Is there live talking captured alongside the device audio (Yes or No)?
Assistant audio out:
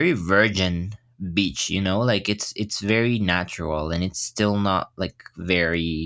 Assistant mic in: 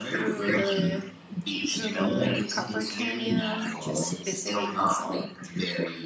Yes